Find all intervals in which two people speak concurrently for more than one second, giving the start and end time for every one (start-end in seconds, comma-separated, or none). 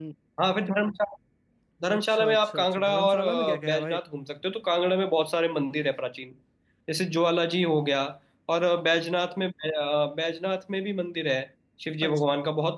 1.9-4.0